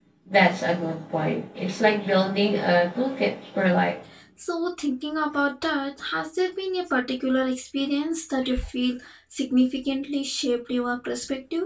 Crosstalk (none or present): none